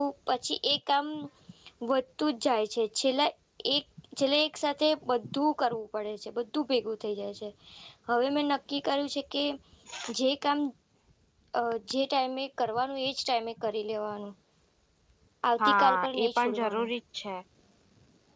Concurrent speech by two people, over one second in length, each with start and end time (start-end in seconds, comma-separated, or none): 15.7-16.9